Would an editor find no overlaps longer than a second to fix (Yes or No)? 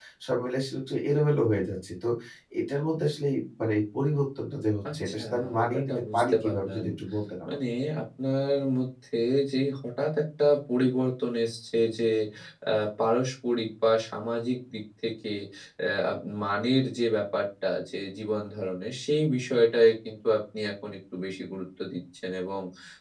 No